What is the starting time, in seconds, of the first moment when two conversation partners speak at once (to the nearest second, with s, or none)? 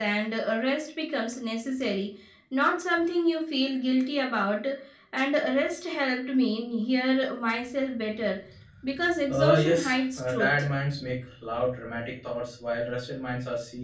9 s